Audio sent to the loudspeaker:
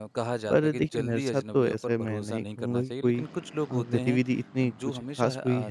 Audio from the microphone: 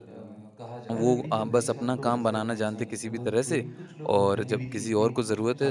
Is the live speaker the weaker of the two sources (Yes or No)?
No